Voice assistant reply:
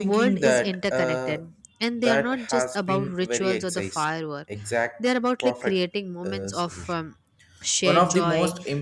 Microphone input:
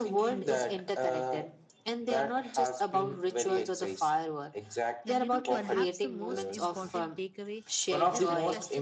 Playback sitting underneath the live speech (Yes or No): No